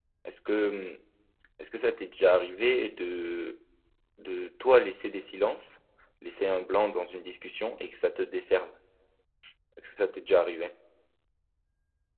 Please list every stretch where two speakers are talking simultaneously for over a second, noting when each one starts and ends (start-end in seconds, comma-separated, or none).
none